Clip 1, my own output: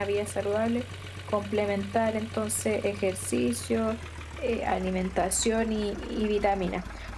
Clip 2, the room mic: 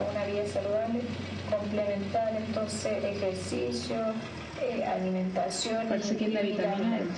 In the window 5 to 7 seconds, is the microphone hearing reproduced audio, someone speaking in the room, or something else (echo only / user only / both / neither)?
both